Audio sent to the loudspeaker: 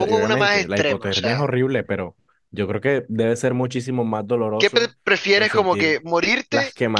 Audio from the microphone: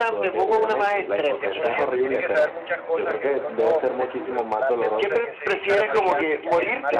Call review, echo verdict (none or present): present